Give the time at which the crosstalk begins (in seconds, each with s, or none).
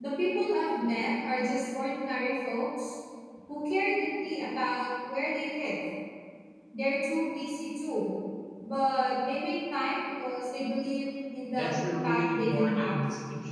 11.5 s